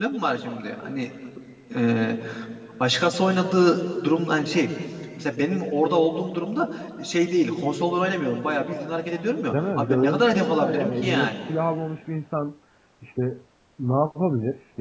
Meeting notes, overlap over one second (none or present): present